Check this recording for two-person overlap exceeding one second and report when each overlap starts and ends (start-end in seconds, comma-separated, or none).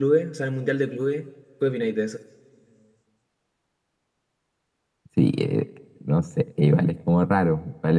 none